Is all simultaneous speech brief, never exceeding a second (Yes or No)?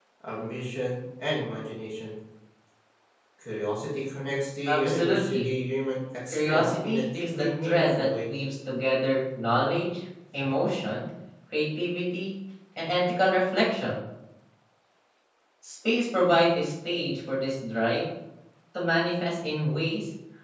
No